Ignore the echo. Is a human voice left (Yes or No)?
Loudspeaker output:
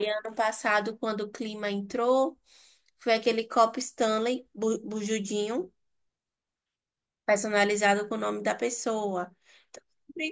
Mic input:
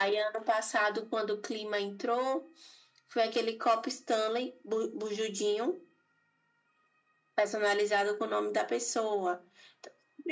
No